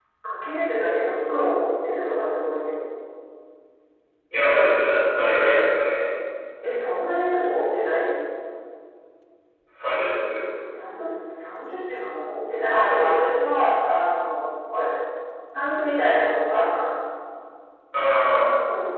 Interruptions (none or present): none